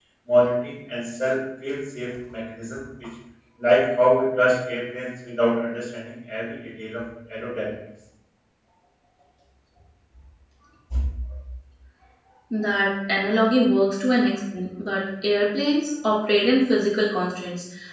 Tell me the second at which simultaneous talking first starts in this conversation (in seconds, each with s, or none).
none